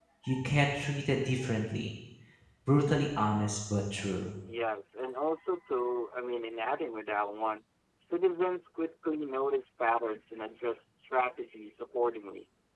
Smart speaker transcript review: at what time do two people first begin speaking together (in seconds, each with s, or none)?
none